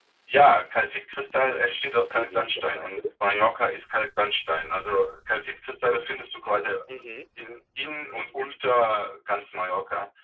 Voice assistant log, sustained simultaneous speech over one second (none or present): present